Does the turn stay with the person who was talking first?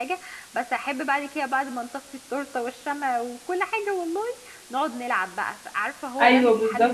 No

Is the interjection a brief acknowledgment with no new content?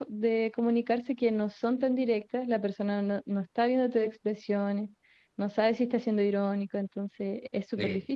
No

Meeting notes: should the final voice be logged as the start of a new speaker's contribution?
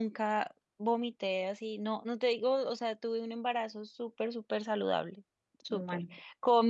No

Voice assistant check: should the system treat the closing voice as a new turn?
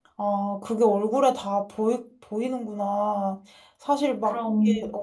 No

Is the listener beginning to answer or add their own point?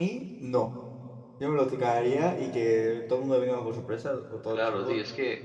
Yes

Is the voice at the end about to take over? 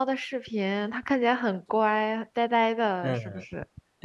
Yes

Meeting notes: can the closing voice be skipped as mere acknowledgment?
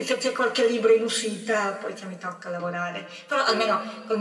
Yes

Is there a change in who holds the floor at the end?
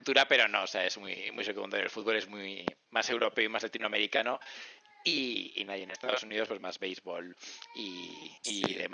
No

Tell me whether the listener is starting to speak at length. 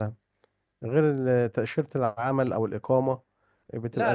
Yes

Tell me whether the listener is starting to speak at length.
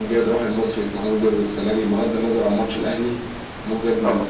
No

